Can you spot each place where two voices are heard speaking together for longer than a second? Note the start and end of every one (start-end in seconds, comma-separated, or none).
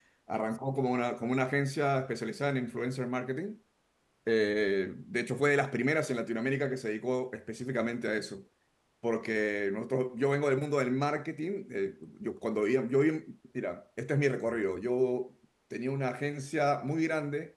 none